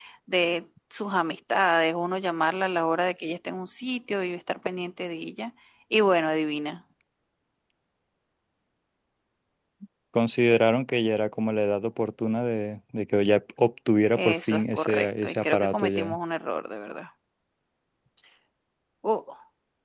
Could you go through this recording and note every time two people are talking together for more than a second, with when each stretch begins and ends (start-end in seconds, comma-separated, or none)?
14.2-16.2